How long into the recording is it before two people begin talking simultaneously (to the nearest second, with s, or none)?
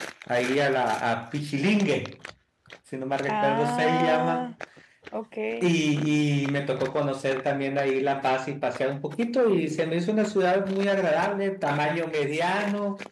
3 s